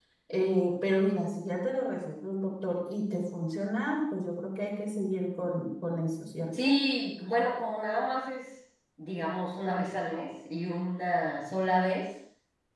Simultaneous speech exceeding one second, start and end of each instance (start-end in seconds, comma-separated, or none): none